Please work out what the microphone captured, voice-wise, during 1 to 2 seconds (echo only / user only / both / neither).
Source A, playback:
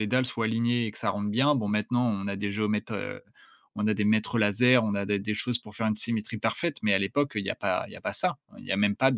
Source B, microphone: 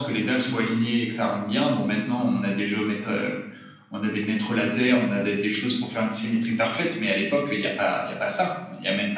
echo only